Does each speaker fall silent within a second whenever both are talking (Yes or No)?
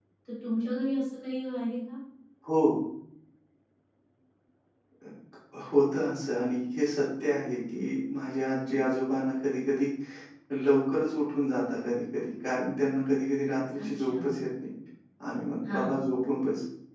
Yes